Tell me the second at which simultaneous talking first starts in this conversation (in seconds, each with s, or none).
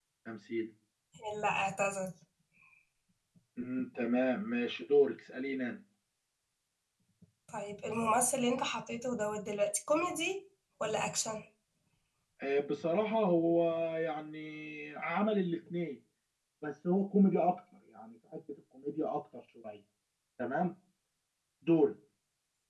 none